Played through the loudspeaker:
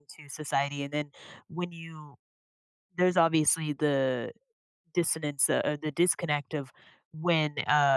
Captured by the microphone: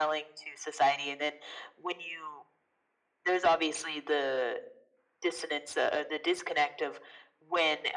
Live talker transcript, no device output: none

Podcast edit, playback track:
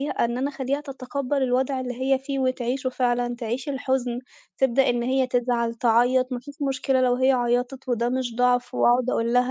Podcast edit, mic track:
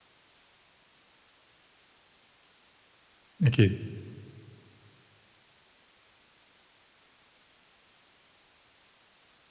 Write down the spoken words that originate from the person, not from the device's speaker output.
أكيد،

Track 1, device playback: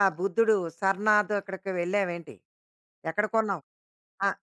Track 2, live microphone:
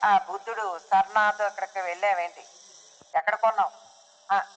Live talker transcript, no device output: none

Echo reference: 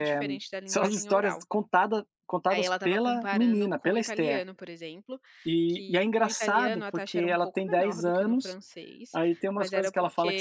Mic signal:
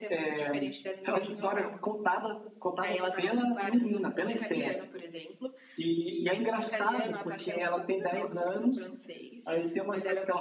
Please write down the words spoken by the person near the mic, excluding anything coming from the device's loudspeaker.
none

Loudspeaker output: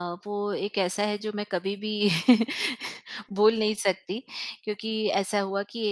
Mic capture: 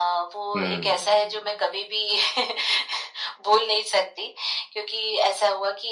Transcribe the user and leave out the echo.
हुँ।

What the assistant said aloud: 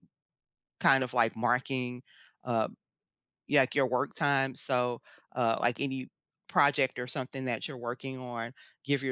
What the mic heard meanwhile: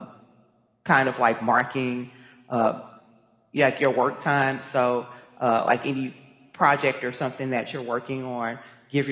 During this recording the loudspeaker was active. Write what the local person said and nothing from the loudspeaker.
none

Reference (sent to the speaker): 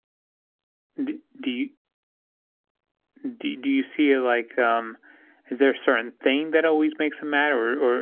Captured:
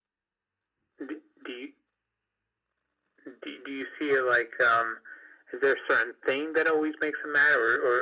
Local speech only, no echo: none

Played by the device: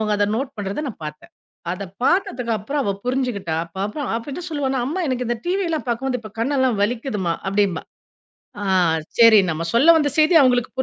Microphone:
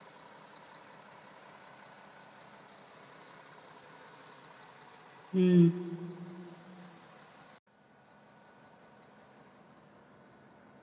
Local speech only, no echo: ம்,

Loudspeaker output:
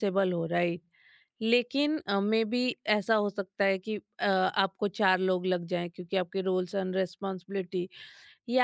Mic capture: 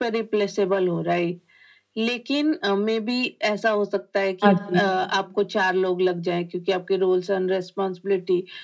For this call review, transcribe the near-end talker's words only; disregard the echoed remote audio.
हाँ जी

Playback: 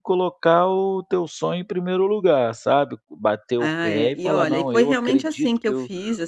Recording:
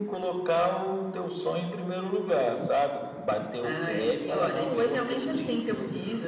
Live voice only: none

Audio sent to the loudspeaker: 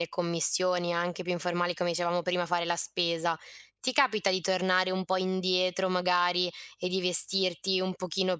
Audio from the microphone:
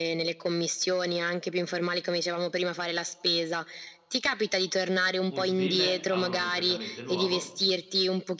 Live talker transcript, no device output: un stile a uno completamente nuovo.

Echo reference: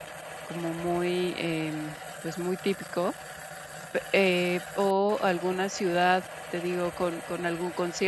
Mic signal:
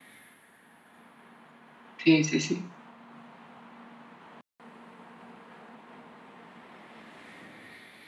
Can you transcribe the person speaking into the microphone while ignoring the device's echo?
sí, sí, sí,

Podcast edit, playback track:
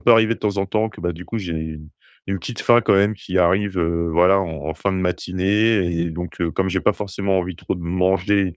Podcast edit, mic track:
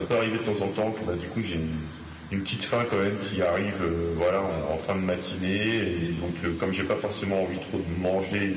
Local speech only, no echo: none

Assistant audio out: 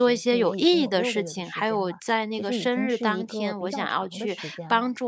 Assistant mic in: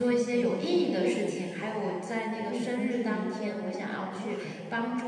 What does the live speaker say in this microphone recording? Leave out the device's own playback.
none

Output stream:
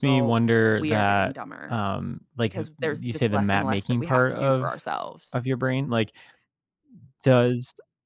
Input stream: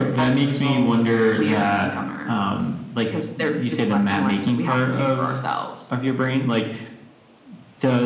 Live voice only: none

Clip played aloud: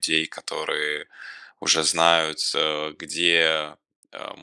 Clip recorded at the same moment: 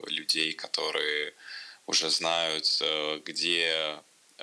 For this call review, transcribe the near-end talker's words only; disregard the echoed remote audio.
none

